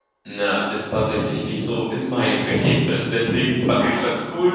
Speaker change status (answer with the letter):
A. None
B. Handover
A